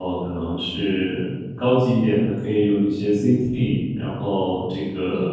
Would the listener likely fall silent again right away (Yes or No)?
Yes